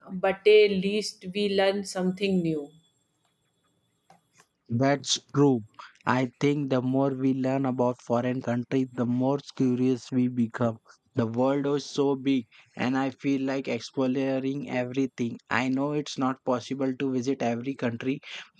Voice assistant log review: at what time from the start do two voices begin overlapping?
none

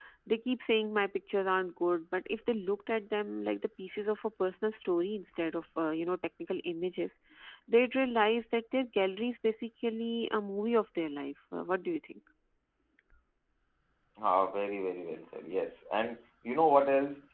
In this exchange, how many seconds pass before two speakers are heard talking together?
none

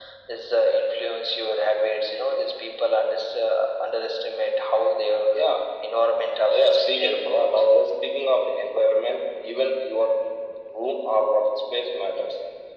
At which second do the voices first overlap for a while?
6.1 s

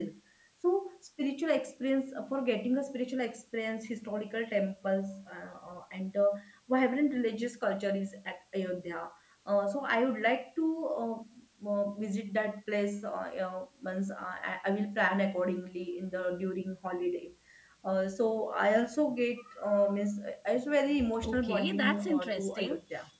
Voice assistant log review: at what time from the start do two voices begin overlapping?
21.0 s

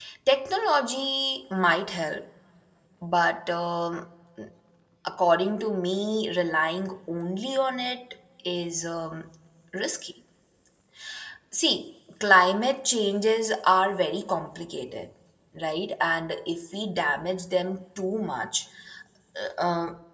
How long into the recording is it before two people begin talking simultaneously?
none

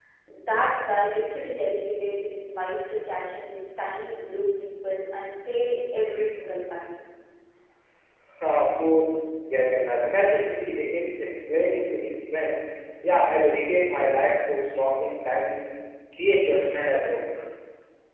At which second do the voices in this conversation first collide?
none

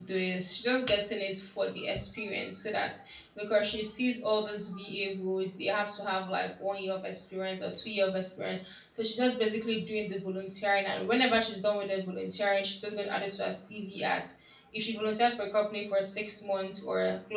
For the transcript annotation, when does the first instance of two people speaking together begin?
none

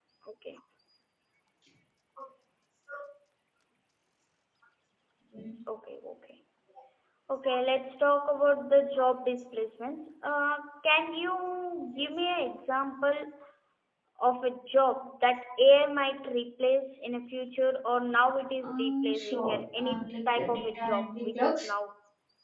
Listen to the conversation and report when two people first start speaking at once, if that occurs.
18.6 s

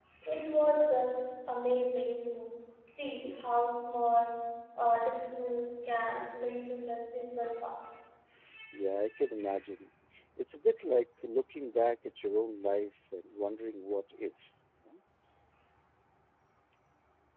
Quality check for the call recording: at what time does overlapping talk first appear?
none

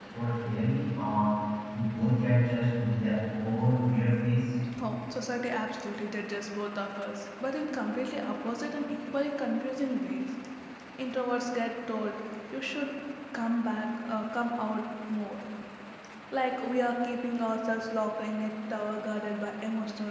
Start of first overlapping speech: none

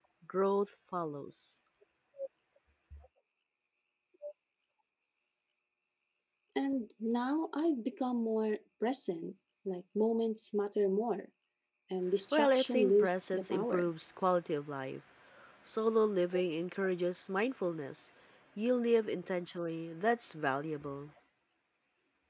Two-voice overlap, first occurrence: 12.3 s

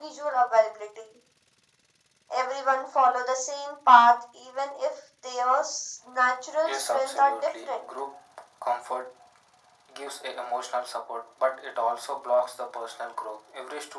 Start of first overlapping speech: 6.6 s

